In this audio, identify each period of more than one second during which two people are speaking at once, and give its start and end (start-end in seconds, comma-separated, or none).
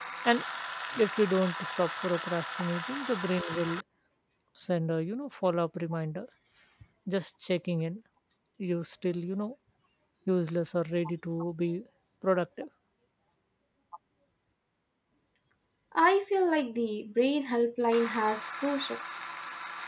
none